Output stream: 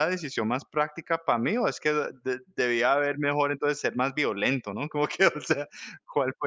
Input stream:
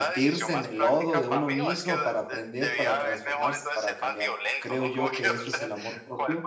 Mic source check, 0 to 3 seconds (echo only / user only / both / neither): both